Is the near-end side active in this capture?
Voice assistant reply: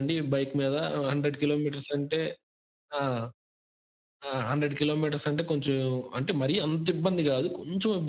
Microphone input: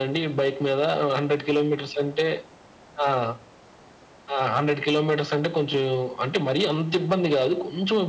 No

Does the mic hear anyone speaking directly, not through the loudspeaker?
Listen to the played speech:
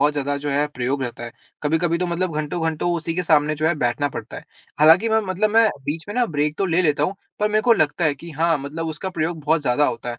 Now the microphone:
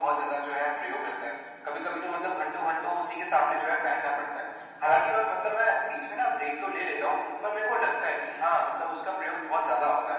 No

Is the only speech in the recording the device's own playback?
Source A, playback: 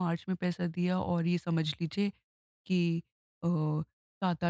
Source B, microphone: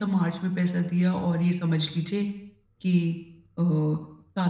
Yes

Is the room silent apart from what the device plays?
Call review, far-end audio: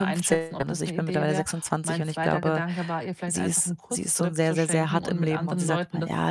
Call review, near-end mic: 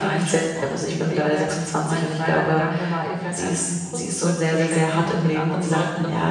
Yes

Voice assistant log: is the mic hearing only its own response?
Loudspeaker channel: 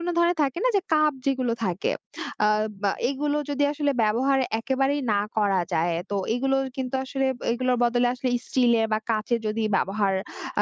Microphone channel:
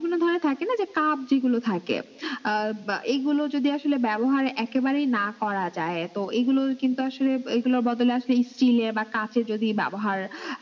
Yes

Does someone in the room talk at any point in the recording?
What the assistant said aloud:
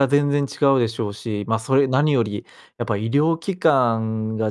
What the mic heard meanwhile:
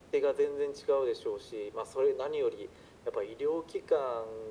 No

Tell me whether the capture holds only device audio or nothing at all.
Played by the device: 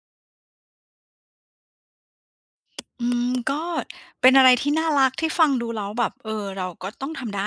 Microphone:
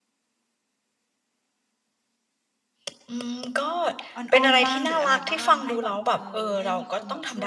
No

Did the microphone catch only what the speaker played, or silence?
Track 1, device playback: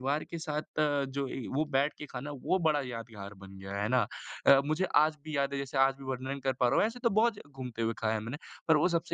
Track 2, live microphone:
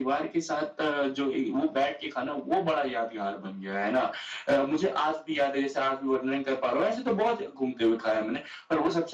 Yes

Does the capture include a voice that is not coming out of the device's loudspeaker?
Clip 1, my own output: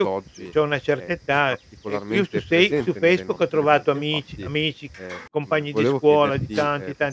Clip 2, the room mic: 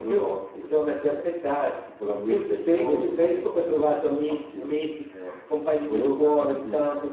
Yes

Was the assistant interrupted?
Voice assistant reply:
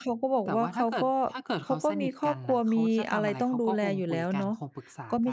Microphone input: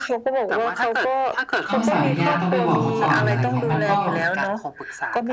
Yes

